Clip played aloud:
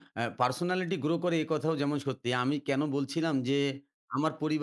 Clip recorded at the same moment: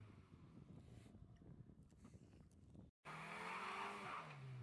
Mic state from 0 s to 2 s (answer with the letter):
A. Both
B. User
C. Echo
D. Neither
D